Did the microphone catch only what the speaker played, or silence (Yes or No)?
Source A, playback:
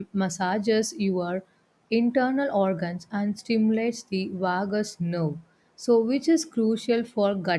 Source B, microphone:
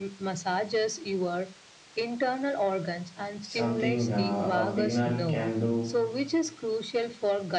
No